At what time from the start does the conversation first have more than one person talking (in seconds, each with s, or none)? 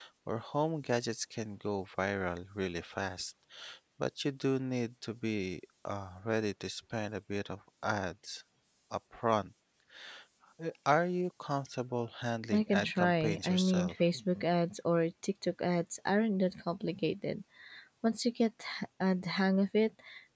12.5 s